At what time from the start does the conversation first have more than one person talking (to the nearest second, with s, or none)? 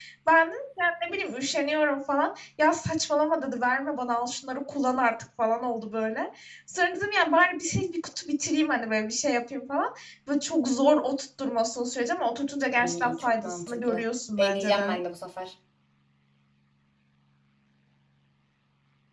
13 s